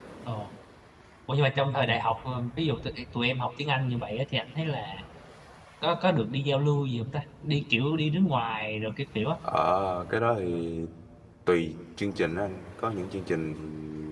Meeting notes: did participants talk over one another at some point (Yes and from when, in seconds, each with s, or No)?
No